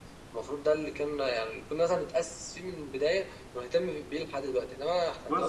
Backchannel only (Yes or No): No